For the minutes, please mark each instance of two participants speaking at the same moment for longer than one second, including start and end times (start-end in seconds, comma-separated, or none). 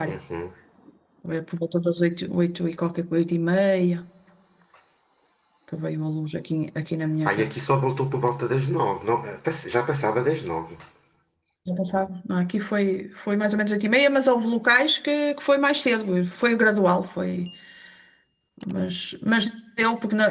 none